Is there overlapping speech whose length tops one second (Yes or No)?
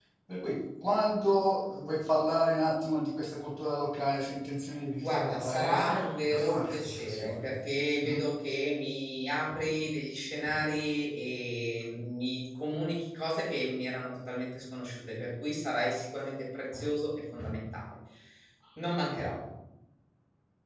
Yes